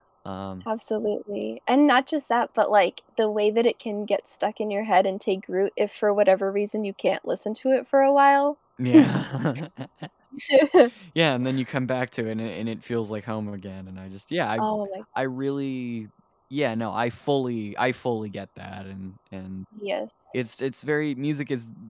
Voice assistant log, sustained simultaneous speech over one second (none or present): none